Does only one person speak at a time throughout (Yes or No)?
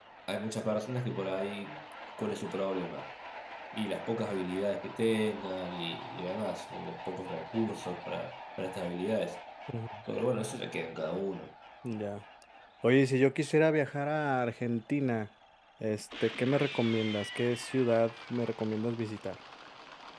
Yes